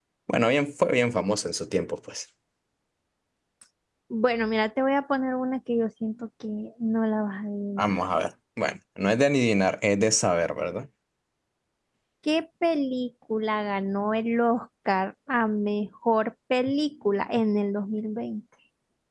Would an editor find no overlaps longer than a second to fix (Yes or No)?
Yes